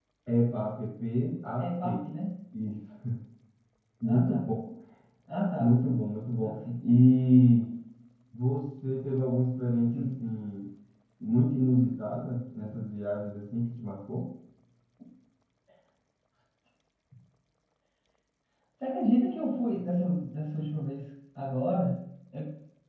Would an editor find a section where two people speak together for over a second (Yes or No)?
No